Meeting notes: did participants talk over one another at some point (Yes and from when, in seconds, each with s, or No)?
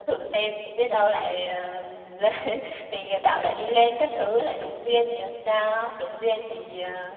No